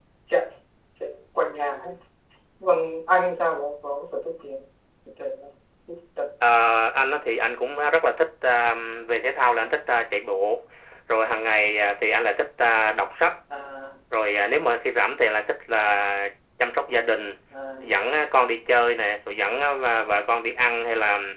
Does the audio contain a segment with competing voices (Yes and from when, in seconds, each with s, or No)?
No